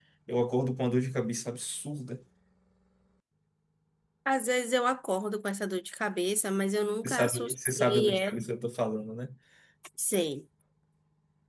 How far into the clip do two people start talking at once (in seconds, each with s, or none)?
7.0 s